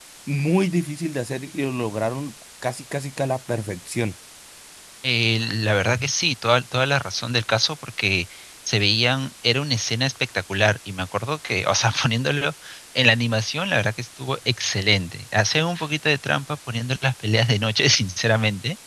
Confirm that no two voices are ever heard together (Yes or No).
Yes